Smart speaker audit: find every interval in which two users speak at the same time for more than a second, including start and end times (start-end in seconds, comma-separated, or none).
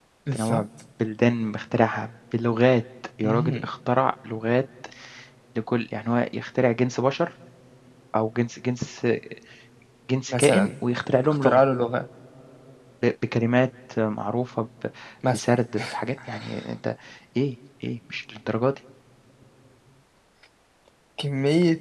none